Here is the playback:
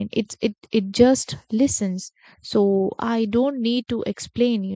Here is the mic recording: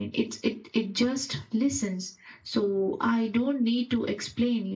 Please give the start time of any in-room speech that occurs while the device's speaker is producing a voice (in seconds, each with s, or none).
none